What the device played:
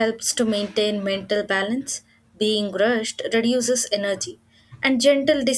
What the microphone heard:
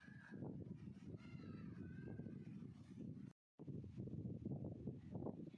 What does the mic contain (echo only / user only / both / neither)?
neither